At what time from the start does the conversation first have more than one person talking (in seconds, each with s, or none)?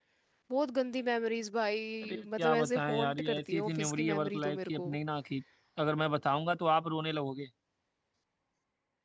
2.0 s